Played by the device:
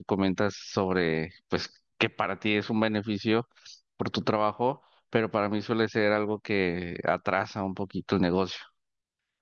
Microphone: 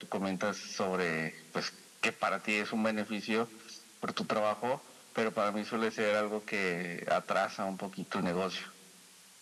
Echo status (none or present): present